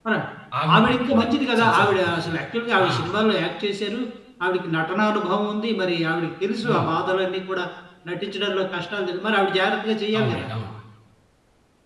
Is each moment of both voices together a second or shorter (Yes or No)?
No